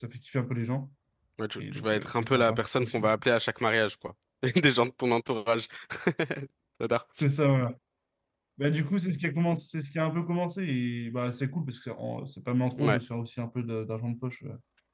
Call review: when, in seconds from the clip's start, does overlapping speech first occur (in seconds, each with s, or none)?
1.6 s